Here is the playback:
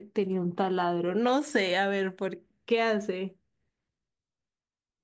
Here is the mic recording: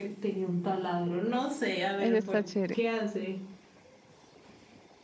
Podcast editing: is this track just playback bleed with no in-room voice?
No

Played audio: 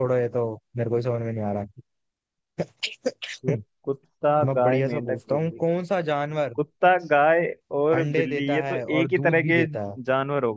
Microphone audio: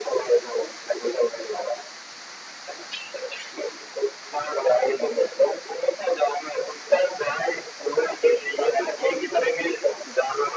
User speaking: No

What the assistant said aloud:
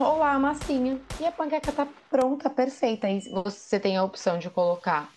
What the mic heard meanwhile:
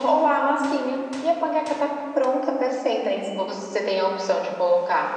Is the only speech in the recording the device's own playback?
Yes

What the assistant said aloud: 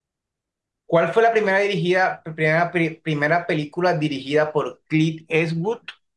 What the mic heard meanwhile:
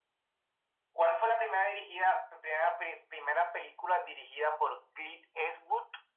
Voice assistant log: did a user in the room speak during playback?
No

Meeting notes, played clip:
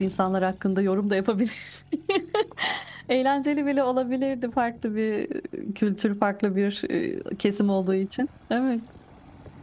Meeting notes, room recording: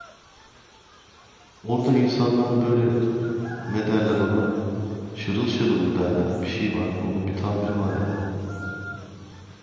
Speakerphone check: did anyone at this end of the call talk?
Yes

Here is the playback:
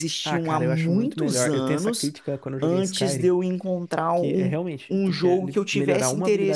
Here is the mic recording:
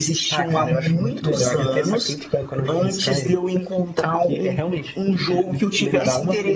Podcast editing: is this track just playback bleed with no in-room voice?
Yes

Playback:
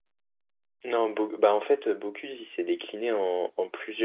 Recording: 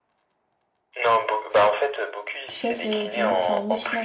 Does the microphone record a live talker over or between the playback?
Yes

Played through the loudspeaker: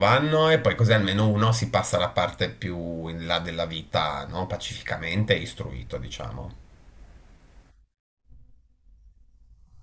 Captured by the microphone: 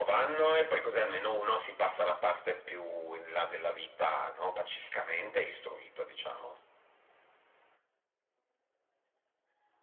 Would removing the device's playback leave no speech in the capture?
Yes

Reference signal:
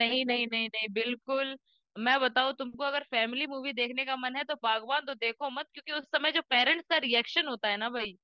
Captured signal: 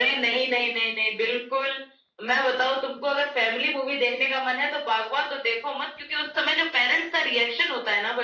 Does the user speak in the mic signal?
No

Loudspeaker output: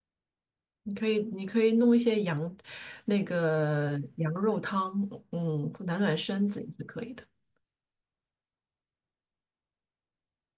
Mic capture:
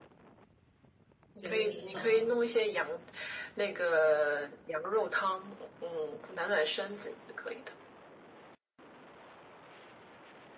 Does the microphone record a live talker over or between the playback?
Yes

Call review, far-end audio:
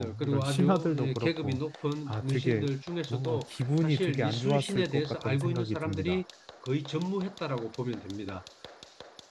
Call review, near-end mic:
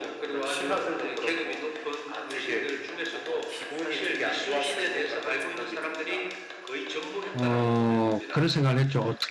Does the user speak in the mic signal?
Yes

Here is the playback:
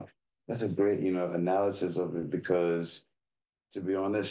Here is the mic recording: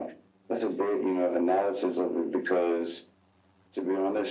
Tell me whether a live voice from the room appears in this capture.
No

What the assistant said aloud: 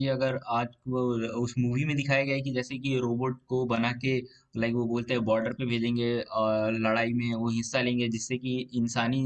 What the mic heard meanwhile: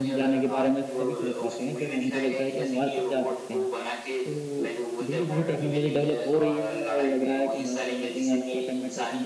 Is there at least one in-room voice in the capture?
Yes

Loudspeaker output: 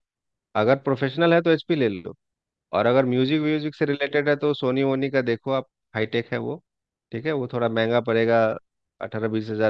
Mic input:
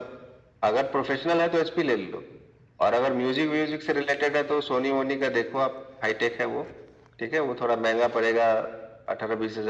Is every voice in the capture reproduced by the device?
Yes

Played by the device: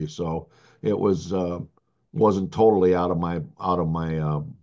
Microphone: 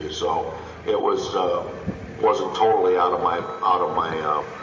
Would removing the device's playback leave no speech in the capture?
Yes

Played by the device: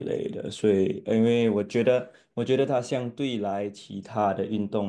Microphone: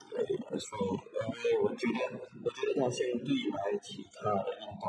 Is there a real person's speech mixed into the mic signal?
No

